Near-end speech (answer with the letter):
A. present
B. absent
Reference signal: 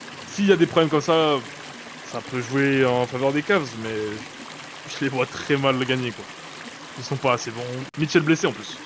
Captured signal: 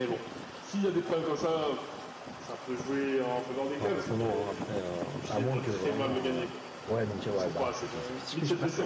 A